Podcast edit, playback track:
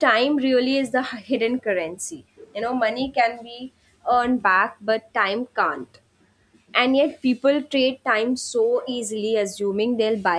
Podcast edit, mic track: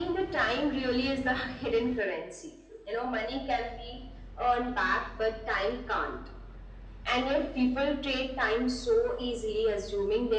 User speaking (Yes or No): No